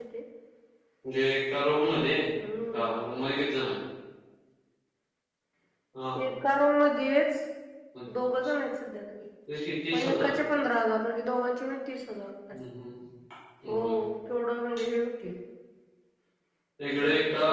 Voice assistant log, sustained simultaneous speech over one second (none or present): none